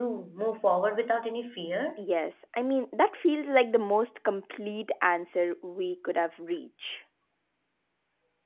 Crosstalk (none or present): none